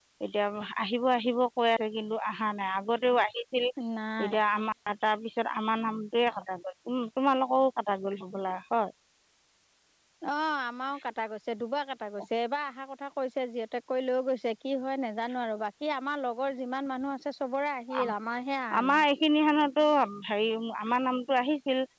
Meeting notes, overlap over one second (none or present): none